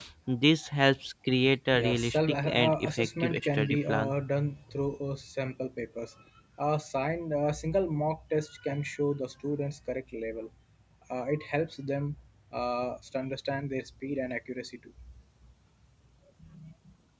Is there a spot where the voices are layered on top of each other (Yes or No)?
Yes